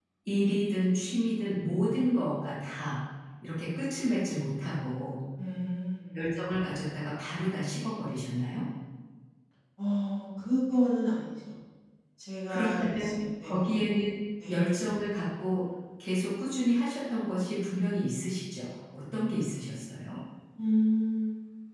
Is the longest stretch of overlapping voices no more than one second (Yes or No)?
No